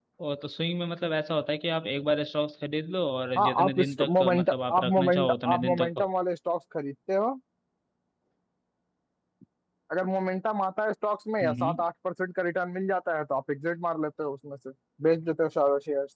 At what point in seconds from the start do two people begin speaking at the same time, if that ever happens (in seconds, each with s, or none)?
3.4 s